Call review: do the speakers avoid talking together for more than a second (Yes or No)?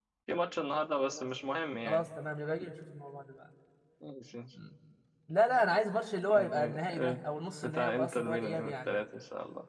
No